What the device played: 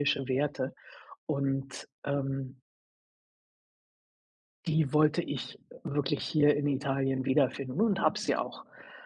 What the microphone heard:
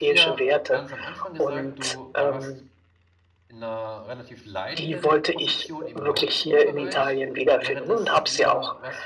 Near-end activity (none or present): present